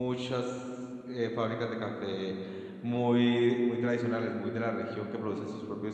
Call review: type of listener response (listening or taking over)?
listening